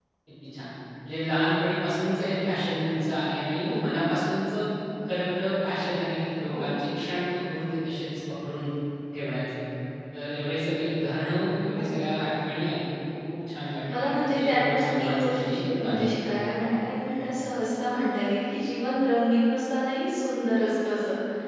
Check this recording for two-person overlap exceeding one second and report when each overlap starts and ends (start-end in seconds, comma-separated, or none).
13.9-16.5